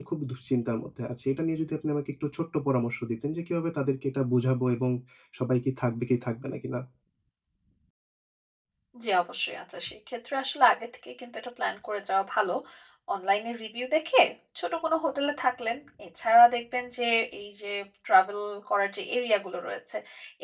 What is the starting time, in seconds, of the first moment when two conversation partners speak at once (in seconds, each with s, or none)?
none